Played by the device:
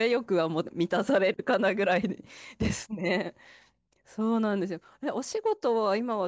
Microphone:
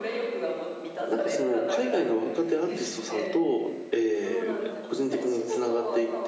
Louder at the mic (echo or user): user